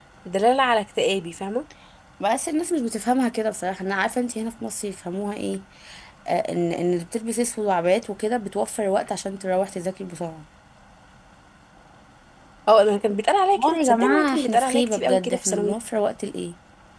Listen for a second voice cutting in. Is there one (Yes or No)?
Yes